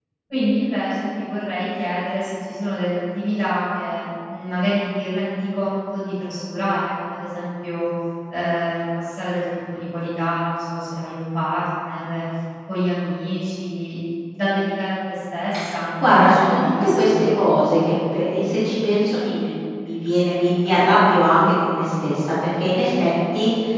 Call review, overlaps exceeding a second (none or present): present